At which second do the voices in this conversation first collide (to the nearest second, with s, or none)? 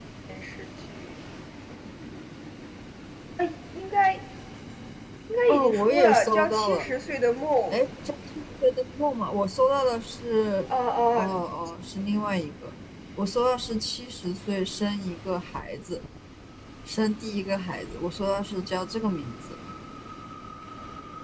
5 s